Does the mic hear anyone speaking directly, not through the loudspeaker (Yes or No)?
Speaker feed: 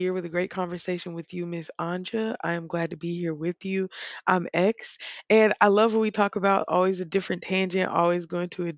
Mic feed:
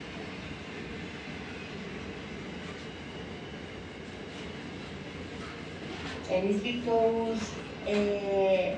Yes